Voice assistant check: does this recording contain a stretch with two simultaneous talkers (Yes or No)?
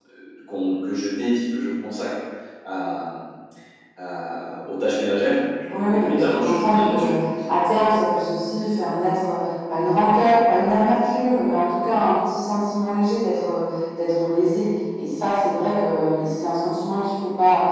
Yes